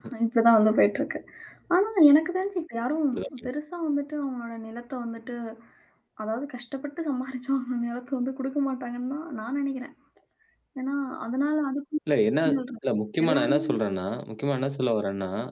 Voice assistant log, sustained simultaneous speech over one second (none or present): none